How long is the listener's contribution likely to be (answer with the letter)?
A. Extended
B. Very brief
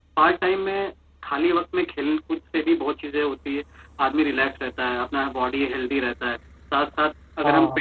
B